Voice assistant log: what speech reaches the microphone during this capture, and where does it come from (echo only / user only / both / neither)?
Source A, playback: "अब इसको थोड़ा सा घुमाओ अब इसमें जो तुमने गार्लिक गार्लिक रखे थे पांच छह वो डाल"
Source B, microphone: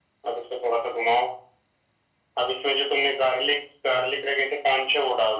echo only